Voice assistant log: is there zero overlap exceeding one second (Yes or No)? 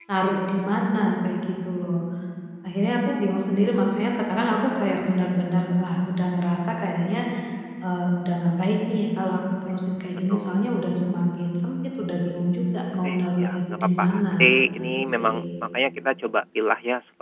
No